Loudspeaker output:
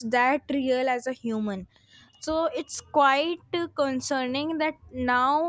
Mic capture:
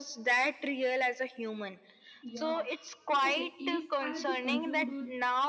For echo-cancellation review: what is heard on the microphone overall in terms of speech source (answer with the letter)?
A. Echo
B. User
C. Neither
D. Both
D